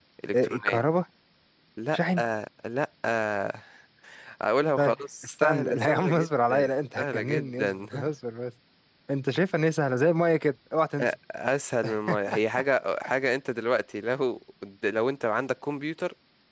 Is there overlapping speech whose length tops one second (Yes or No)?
Yes